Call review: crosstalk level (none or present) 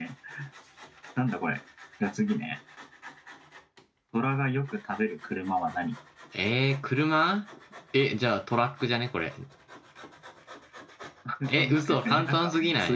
present